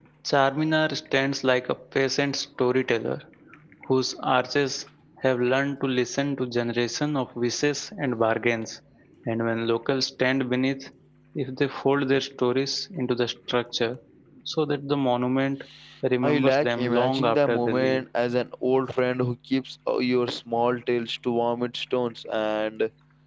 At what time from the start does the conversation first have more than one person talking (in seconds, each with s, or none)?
16.2 s